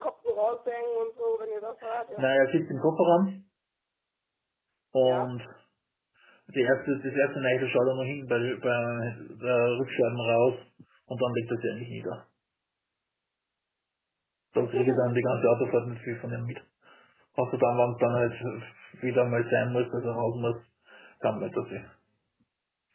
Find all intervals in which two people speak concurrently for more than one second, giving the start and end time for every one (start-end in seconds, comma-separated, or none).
none